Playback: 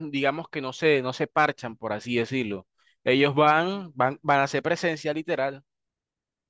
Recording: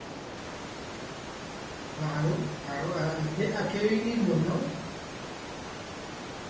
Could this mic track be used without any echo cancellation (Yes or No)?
Yes